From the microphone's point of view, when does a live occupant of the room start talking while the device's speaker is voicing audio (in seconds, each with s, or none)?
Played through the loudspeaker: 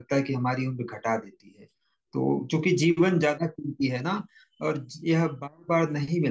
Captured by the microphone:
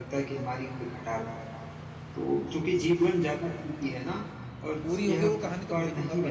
4.8 s